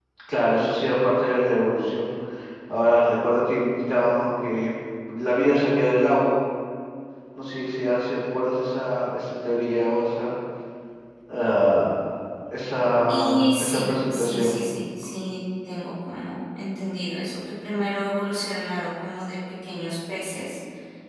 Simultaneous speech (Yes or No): Yes